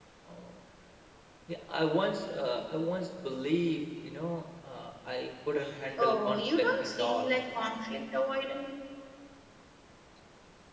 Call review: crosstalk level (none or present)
present